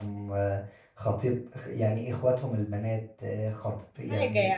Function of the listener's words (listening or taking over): listening